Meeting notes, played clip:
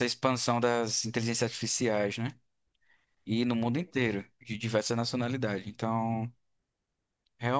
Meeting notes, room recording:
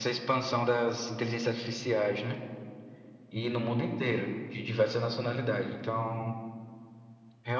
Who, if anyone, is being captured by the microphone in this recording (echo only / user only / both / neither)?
echo only